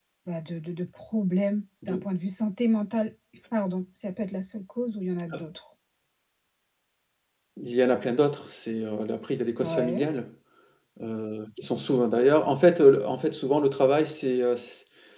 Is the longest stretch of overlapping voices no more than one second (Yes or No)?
Yes